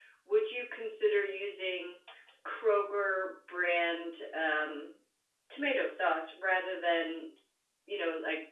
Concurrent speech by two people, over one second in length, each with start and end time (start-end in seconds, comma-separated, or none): none